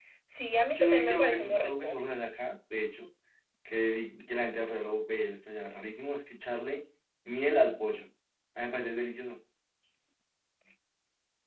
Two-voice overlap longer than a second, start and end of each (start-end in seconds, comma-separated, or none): 0.7-2.0